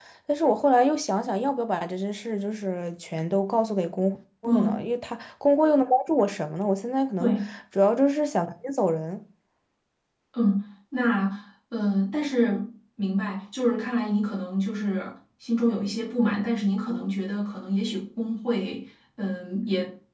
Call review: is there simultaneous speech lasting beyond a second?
No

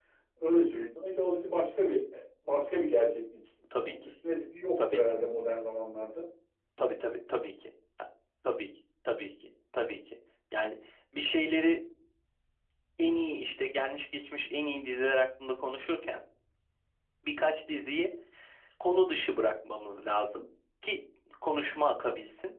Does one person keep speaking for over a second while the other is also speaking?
No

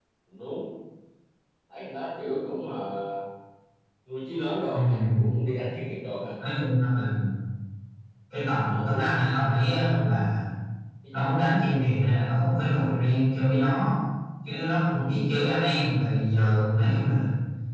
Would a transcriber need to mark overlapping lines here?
Yes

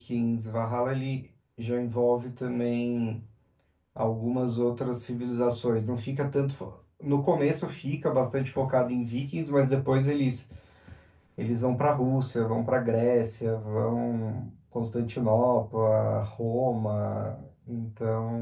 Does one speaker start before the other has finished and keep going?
No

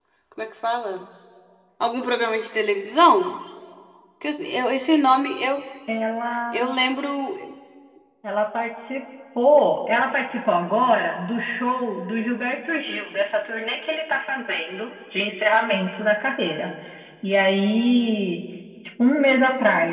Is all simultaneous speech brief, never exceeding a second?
Yes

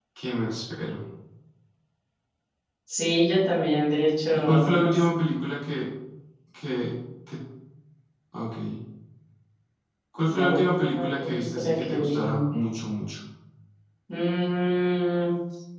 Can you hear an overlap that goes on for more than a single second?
Yes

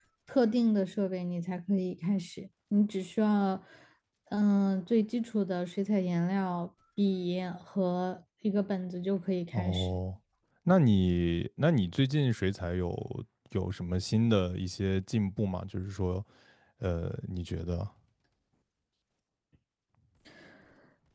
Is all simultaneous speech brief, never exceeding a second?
Yes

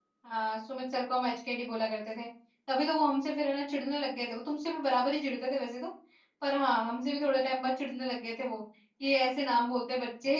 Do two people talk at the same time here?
No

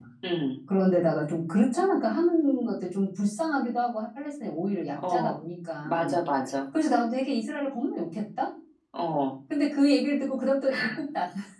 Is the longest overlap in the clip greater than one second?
No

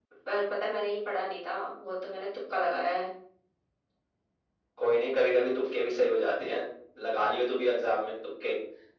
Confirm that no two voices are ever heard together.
Yes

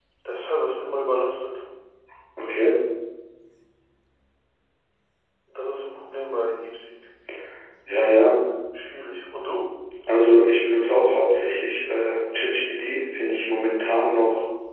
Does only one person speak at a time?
Yes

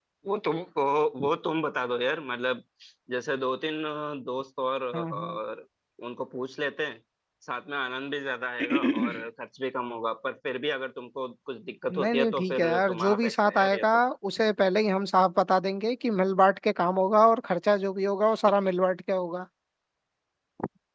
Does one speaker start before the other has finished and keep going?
Yes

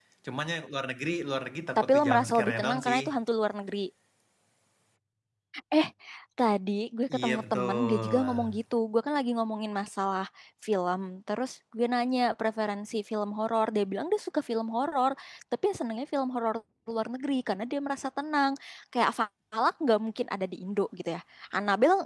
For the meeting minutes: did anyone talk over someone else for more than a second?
Yes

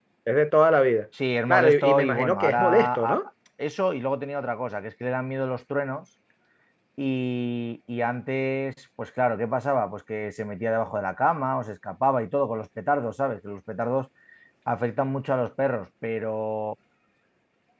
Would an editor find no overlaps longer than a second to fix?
No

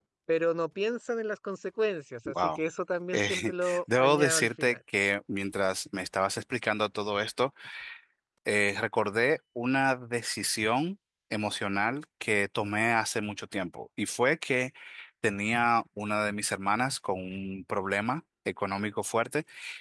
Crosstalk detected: Yes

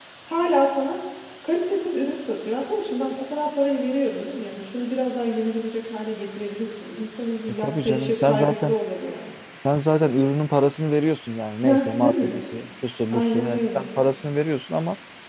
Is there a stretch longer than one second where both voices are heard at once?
Yes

